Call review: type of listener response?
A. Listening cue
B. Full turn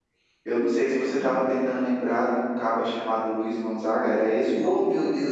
B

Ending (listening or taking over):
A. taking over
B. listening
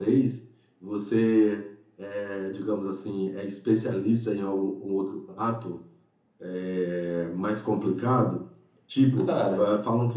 B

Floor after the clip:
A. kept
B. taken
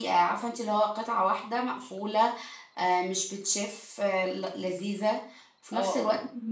B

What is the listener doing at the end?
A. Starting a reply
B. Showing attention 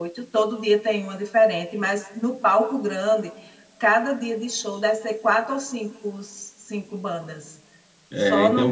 A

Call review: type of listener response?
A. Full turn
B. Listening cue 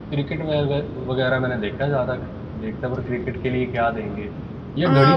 A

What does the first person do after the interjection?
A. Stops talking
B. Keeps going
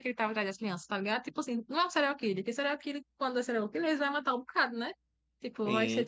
A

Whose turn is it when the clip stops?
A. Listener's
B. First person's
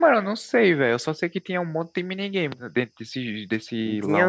A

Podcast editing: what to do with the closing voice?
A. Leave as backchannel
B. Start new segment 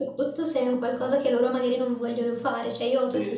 A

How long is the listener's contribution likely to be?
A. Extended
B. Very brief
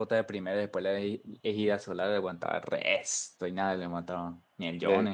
A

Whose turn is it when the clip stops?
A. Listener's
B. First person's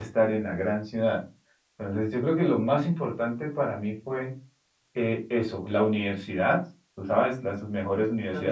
B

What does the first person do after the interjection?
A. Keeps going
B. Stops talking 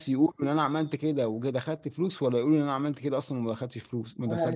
B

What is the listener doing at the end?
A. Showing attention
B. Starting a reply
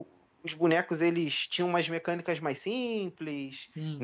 A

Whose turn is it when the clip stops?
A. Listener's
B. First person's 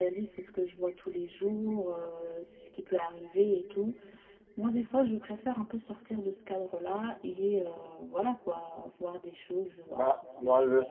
A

